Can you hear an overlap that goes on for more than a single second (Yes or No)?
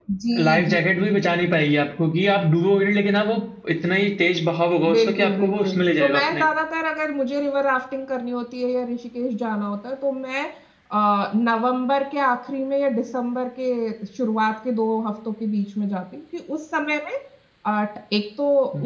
Yes